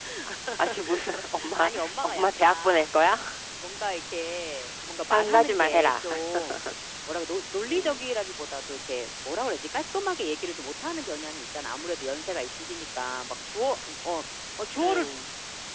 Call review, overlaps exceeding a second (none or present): present